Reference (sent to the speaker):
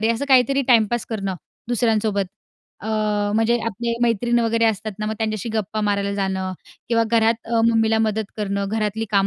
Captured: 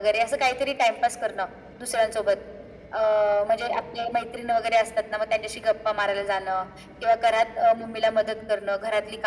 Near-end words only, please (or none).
none